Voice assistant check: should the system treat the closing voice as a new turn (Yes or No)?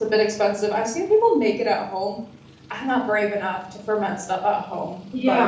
Yes